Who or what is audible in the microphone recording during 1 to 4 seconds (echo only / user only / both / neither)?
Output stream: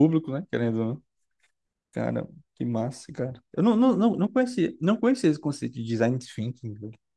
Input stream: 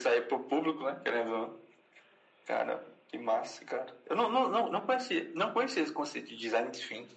echo only